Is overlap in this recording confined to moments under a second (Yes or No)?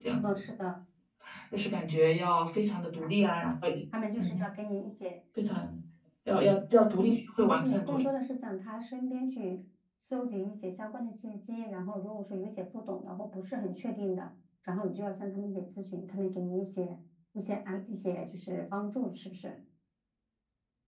Yes